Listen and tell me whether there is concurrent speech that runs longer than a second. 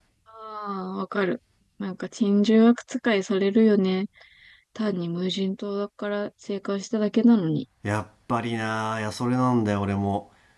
No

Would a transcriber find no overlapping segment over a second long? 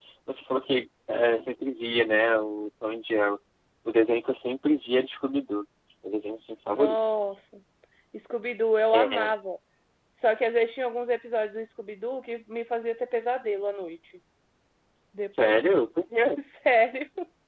Yes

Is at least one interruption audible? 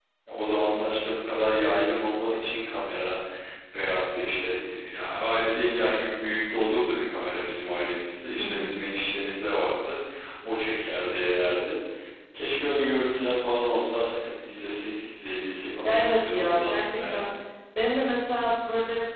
Yes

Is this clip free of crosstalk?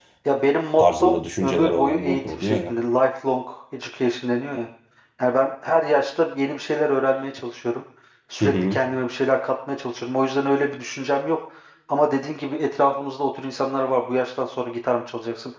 No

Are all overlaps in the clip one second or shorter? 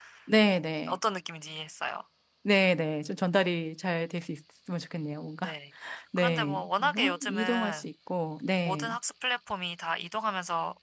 No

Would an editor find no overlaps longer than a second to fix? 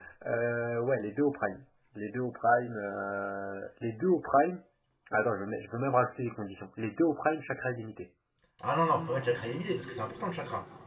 Yes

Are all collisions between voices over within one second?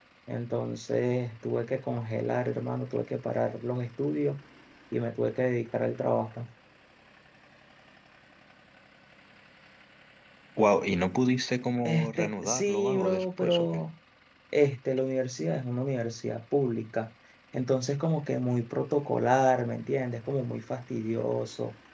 No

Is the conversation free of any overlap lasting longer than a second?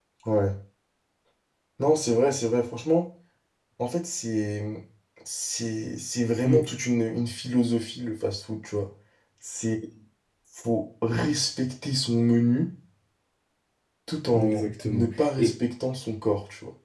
No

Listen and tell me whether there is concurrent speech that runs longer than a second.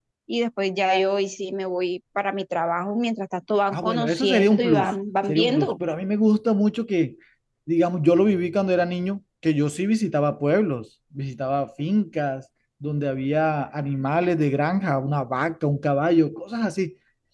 Yes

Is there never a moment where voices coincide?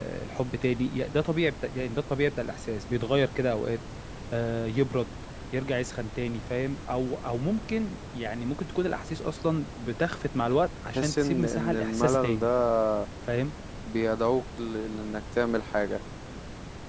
No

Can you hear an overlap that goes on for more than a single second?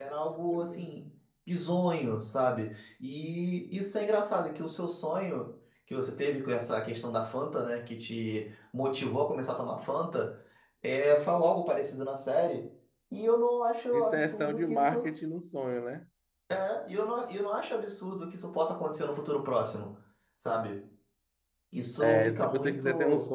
Yes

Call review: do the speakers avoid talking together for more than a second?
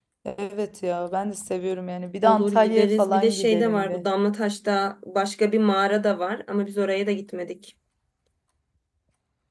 No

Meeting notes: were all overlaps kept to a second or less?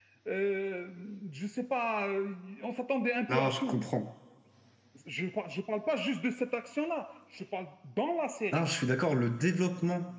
Yes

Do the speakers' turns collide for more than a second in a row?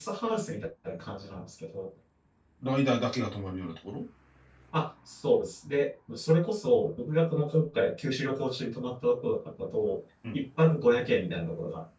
No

